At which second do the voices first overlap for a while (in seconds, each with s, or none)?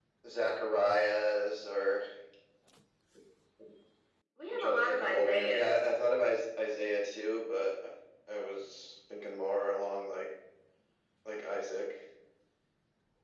4.5 s